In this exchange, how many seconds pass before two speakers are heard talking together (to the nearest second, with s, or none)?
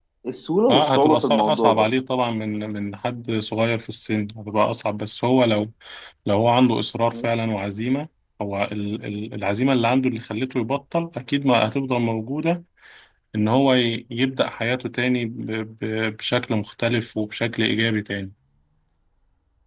1 s